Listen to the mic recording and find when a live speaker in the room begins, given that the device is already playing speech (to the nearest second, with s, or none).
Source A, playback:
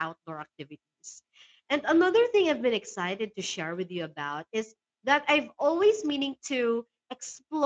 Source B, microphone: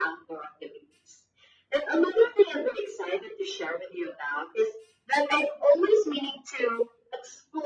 none